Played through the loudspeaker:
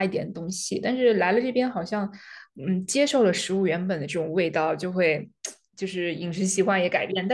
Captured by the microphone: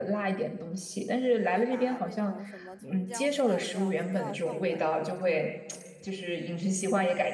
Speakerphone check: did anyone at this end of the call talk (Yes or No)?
Yes